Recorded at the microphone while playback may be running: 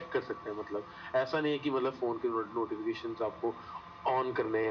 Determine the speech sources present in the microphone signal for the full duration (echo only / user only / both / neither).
echo only